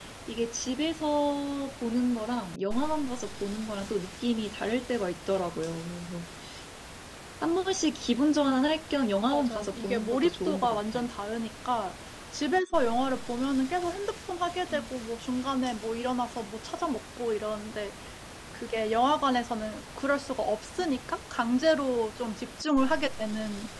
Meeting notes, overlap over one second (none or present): present